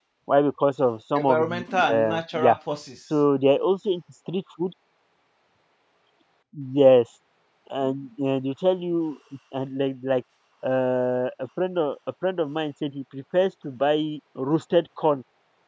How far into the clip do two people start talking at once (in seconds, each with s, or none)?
1.2 s